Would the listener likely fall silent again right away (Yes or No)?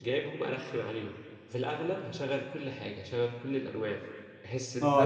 No